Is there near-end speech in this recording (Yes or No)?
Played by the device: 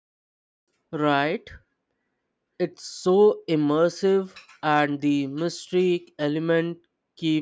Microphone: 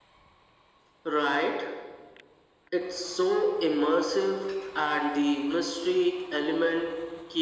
No